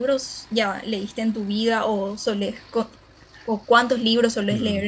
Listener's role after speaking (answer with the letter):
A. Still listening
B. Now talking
B